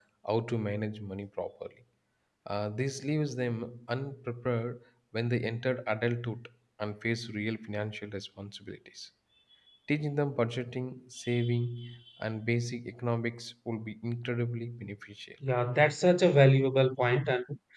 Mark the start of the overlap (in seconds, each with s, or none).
none